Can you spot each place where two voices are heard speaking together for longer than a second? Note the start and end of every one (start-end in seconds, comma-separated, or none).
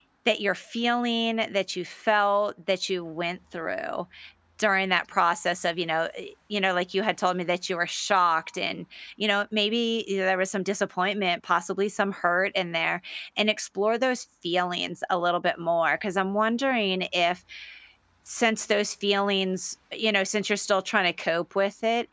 none